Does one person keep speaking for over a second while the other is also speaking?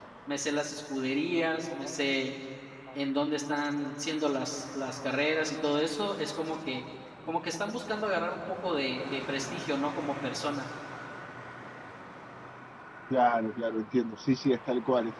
No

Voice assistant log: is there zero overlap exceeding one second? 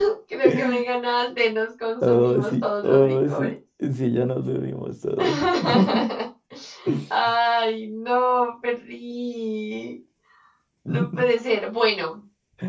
No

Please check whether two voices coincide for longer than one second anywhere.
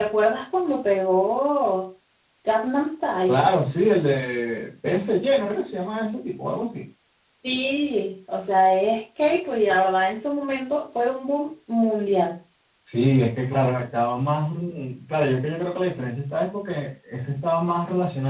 No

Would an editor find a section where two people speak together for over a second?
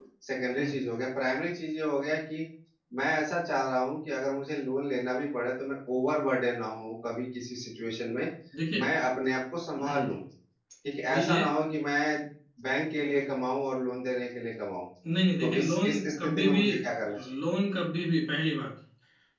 Yes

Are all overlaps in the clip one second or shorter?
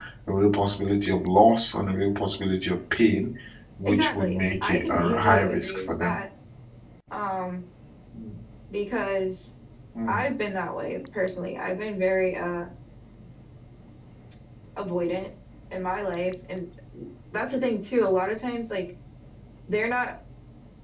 No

